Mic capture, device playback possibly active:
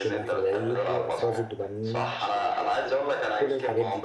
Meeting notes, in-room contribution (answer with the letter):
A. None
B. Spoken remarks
B